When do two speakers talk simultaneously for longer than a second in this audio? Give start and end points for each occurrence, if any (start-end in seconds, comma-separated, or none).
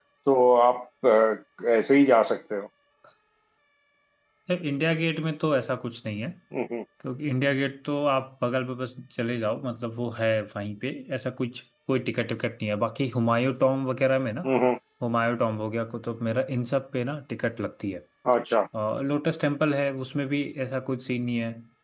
none